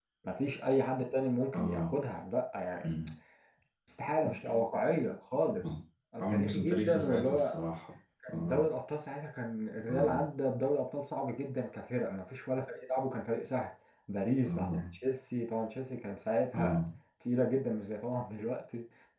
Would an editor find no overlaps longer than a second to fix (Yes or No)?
No